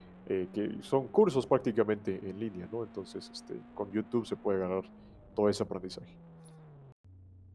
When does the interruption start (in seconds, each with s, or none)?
none